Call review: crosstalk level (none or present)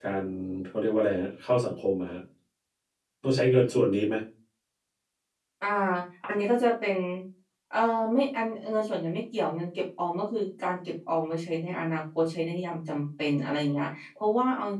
none